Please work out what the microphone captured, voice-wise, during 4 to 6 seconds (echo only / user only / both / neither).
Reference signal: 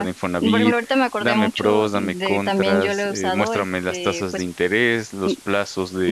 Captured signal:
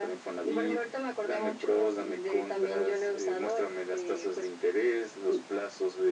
echo only